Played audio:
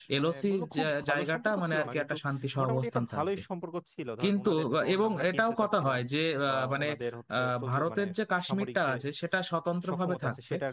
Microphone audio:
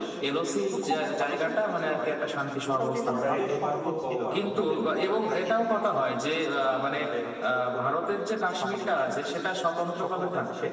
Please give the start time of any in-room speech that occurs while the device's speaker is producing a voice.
3 s

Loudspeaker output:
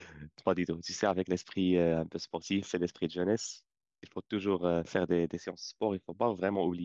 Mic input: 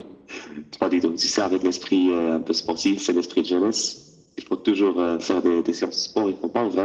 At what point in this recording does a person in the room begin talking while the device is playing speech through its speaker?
none

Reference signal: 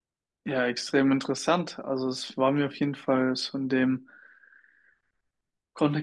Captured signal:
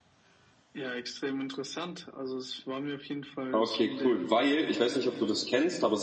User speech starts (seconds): 4 s

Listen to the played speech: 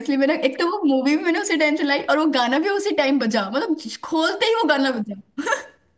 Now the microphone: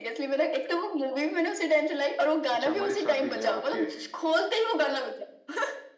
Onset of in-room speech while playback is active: 3 s

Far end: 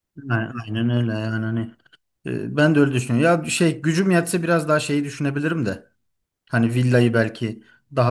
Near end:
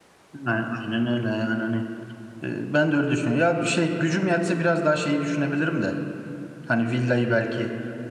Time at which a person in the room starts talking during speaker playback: none

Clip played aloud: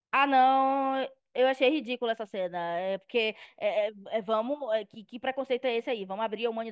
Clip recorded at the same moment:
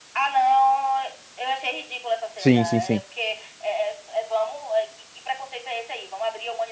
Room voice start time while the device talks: 2 s

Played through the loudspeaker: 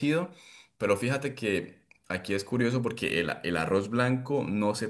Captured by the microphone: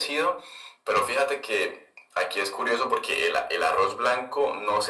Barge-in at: none

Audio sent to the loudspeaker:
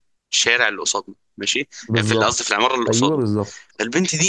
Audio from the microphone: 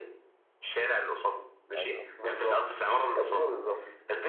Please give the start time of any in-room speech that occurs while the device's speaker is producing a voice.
2 s

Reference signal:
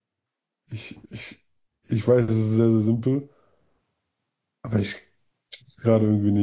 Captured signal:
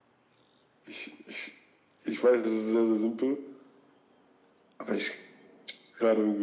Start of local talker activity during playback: none

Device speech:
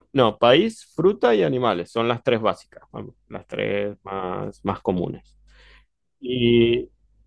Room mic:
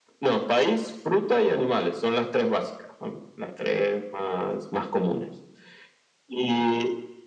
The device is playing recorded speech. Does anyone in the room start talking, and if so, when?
none

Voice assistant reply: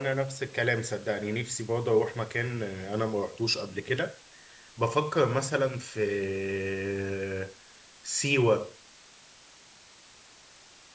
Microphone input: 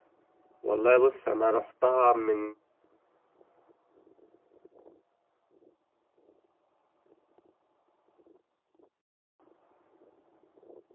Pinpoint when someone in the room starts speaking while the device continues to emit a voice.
1 s

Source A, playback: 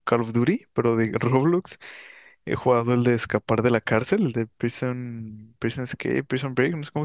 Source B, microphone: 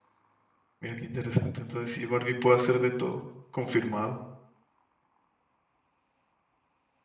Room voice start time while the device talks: 1 s

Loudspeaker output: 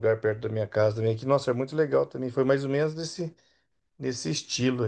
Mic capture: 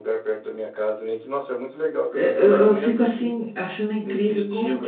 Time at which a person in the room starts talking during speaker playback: 2 s

